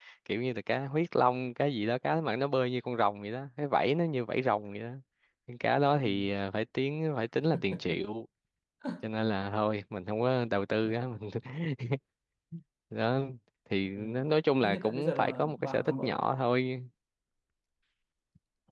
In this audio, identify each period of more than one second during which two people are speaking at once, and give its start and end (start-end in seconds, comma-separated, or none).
14.6-16.1